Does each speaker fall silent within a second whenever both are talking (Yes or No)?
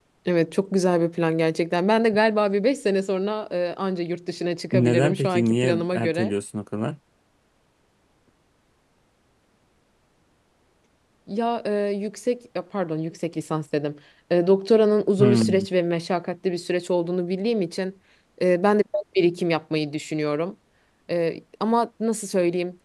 No